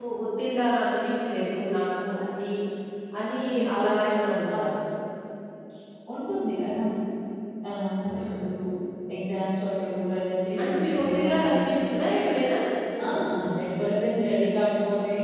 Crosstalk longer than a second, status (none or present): present